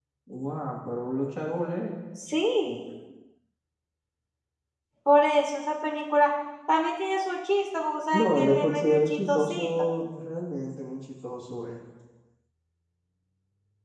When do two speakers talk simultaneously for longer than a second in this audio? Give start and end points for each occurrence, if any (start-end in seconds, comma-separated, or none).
8.1-9.9